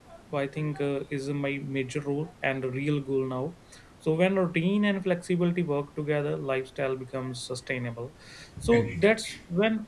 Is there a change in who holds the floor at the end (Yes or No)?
No